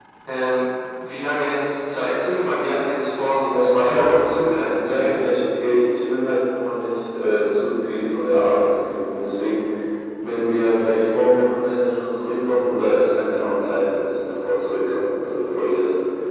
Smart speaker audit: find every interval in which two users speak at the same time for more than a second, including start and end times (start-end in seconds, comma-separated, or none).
3.5-5.2